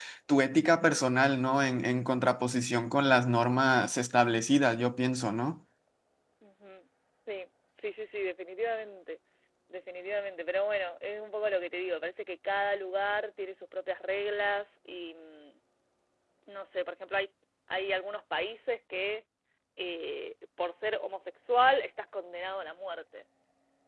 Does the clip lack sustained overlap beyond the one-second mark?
Yes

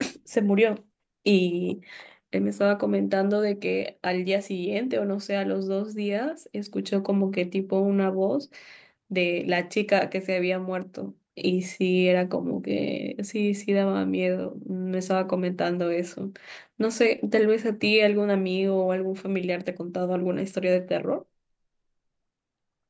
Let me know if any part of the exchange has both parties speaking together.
No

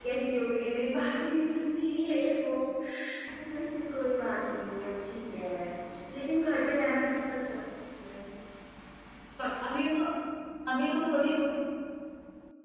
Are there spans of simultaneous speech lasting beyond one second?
No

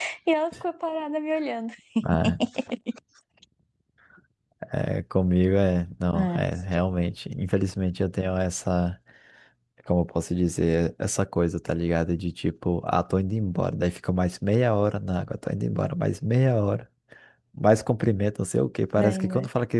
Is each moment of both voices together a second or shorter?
Yes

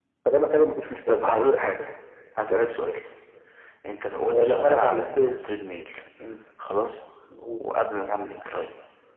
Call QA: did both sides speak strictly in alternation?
No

